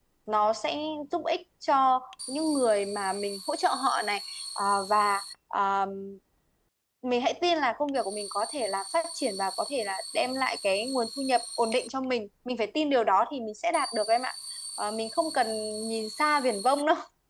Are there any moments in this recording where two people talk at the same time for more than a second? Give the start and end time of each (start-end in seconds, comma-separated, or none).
none